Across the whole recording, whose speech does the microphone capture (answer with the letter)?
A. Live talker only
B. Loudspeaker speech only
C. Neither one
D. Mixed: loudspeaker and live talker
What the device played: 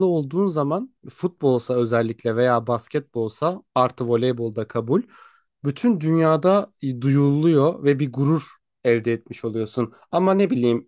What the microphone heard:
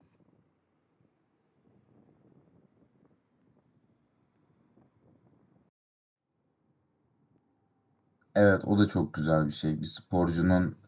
A